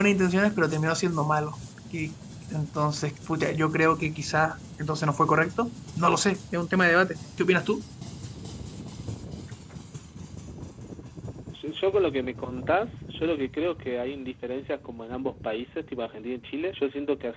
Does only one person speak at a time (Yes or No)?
Yes